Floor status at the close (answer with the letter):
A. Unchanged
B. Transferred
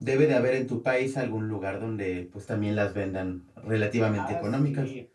B